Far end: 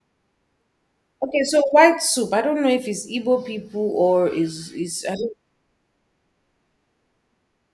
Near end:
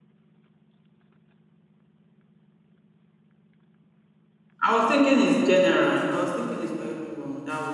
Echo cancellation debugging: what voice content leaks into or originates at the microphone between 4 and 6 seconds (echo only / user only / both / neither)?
user only